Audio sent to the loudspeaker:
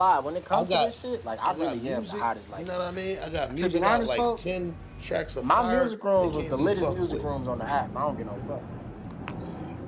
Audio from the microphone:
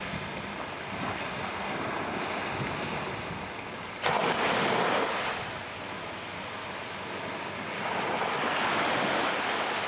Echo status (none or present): none